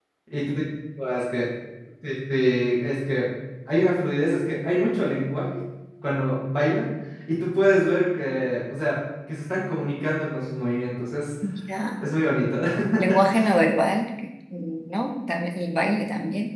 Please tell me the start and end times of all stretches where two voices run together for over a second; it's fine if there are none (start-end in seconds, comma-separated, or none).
none